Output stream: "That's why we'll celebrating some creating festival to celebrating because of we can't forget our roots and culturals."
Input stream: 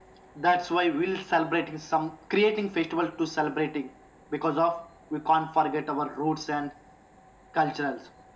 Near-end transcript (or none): none